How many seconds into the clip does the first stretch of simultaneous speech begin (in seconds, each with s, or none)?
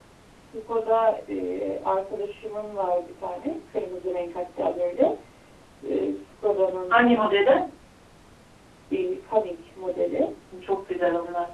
none